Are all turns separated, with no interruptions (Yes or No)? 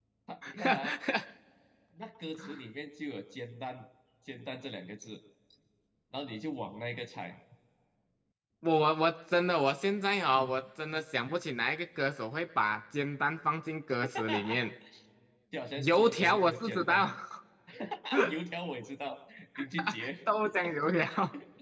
No